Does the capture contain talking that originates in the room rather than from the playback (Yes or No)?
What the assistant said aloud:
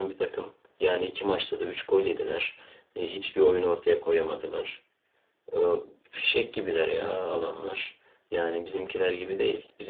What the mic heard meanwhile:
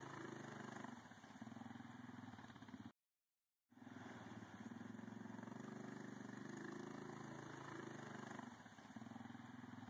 No